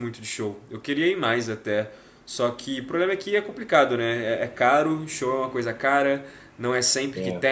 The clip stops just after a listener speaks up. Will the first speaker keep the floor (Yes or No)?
Yes